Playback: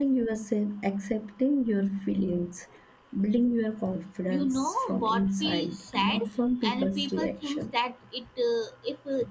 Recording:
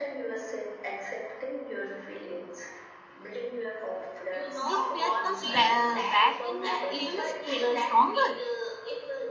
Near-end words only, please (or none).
the fear comes ba- back and uh, even str- uh, stronger.